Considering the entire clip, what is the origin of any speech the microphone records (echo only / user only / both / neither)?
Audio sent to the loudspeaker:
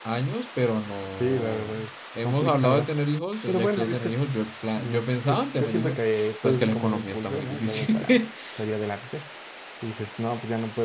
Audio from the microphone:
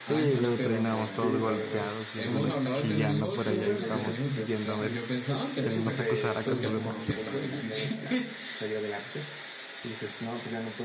both